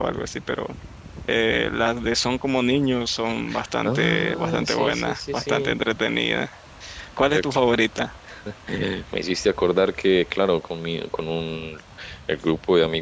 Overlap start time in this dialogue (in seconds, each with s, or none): 3.9 s